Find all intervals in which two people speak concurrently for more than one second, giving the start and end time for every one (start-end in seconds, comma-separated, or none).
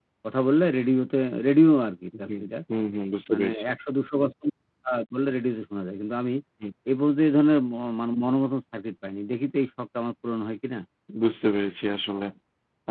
none